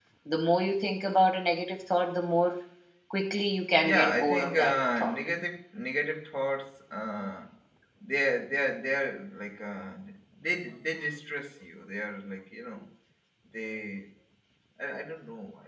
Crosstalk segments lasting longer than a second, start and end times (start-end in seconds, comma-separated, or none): 3.8-5.2